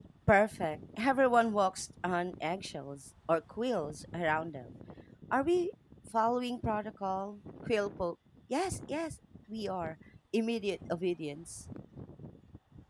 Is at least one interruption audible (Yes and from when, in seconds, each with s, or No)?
No